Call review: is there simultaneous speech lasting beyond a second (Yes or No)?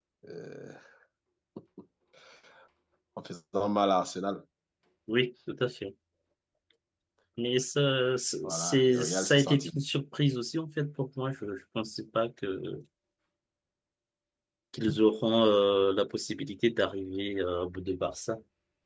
Yes